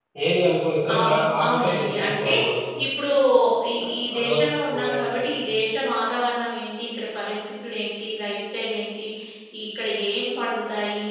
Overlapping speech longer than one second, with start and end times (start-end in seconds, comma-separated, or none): 0.9-2.3, 3.8-5.1